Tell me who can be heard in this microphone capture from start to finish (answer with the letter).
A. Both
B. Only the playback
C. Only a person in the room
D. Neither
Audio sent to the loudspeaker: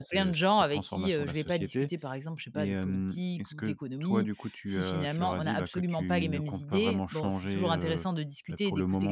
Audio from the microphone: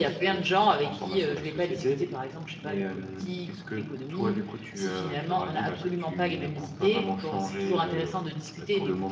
B